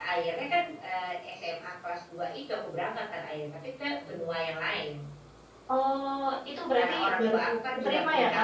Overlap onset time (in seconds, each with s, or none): 6.8 s